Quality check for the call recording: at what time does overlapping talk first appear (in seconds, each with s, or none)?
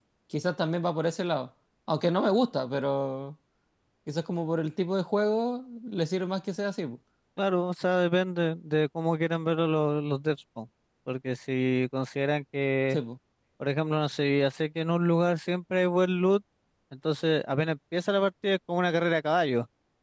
none